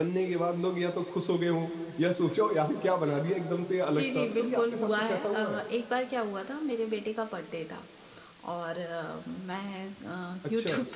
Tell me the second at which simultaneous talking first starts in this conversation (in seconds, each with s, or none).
4.0 s